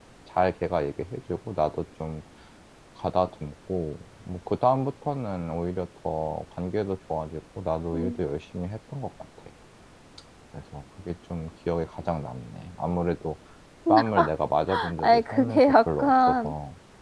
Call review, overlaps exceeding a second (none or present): present